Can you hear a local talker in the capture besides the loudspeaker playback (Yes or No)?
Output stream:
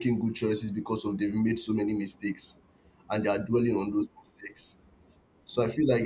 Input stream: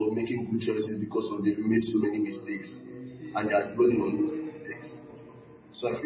Yes